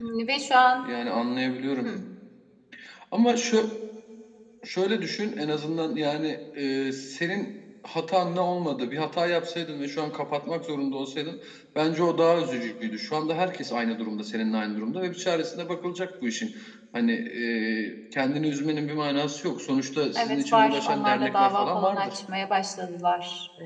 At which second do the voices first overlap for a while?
20.2 s

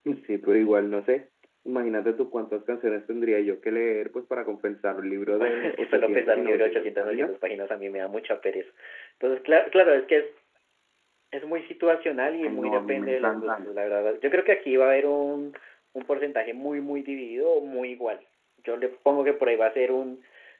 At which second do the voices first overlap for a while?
5.4 s

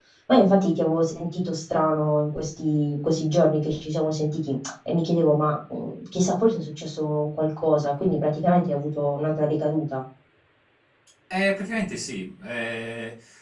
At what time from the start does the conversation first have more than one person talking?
none

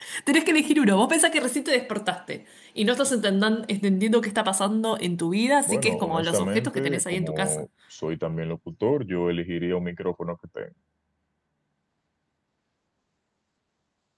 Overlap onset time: 5.7 s

